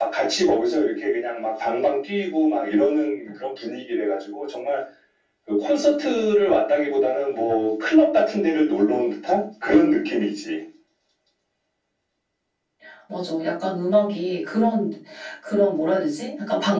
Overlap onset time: none

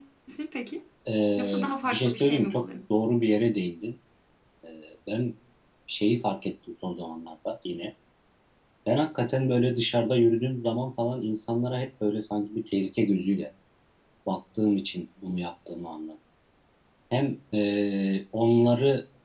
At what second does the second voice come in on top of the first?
1.4 s

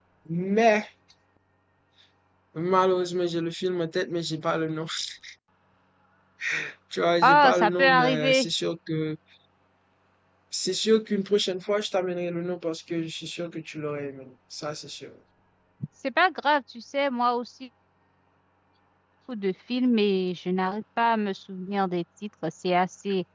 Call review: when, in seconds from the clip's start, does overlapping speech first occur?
7.2 s

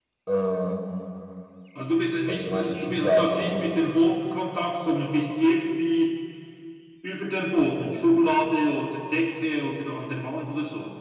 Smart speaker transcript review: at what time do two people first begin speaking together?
2.3 s

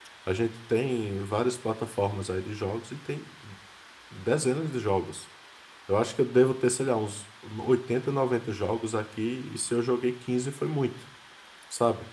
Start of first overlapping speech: none

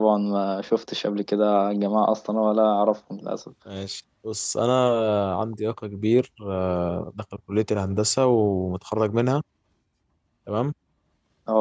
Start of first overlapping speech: none

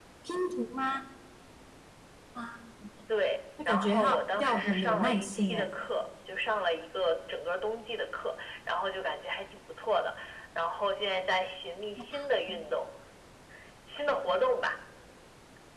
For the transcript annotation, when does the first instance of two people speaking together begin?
3.6 s

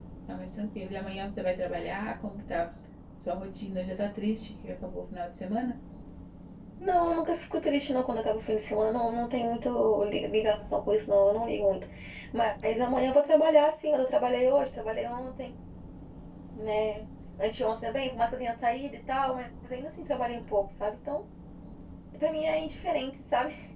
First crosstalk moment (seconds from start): none

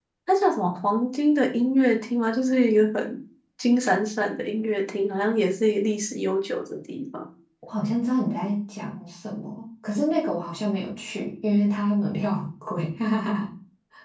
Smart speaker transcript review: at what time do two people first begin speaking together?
none

